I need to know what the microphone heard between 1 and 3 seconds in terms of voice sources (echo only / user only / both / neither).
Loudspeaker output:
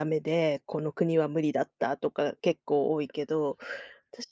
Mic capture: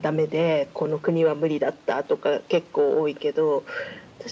echo only